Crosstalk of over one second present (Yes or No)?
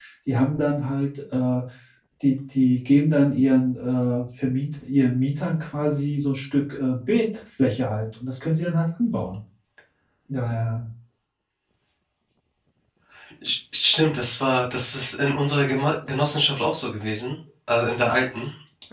No